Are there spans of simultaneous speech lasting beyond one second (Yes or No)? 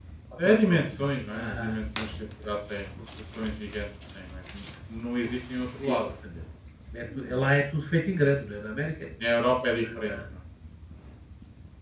No